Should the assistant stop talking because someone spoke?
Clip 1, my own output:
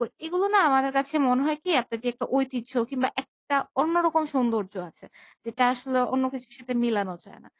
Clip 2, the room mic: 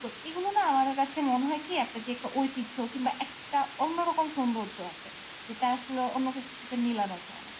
No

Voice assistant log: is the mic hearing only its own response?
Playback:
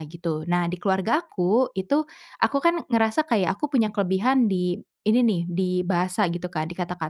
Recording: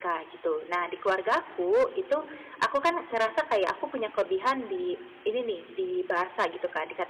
Yes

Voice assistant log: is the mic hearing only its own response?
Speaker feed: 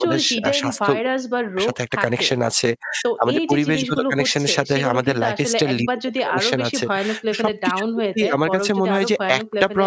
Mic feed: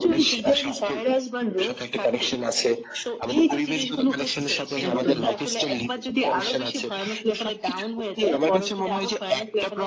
No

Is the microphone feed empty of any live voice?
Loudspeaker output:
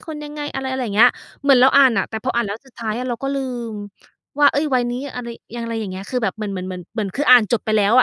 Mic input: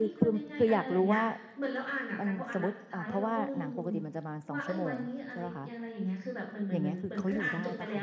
No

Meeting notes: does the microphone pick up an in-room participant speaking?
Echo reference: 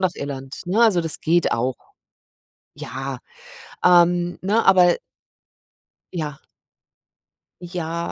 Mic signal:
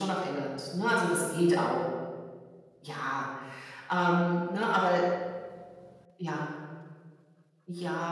No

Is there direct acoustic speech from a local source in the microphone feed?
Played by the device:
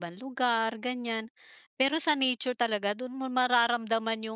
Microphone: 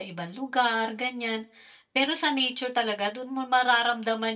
No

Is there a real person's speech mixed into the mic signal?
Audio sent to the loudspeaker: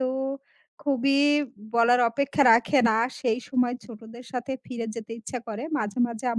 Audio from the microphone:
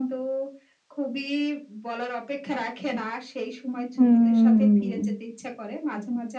Yes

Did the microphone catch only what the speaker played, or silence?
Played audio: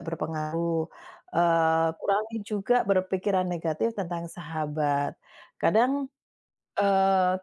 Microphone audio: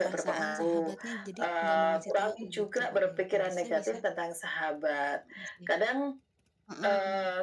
No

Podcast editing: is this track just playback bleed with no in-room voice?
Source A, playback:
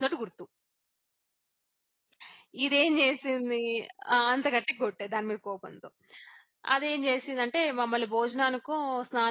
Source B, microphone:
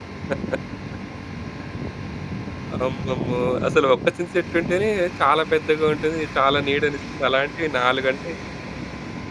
No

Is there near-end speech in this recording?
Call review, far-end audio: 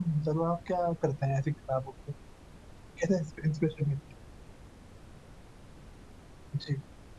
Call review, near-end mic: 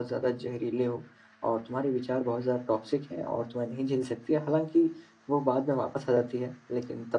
Yes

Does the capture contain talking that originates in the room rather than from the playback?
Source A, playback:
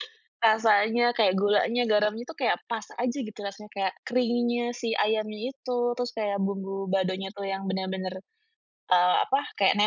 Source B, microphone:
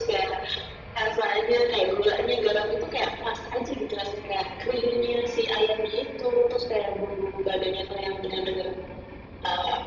No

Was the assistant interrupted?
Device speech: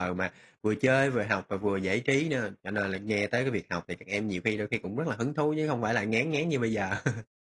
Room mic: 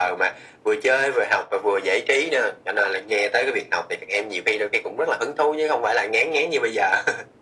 No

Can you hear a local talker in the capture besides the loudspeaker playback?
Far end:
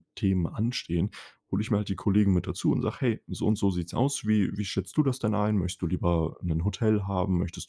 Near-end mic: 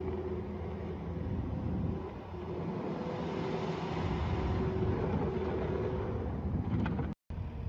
No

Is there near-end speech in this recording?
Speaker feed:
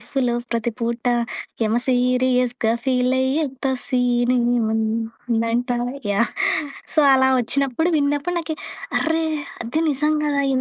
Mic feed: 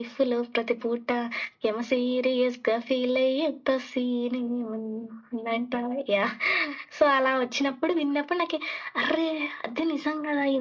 No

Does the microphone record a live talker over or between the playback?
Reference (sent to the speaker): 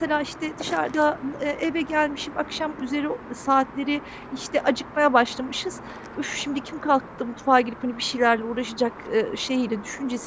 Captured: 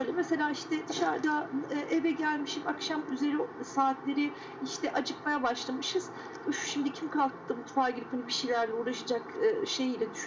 No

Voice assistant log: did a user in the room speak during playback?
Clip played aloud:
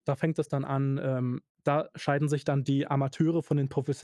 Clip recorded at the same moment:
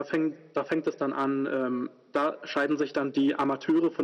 No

